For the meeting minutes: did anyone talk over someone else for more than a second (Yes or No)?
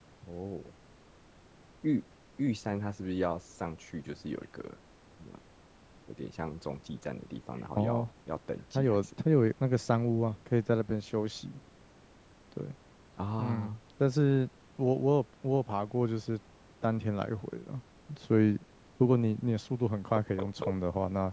No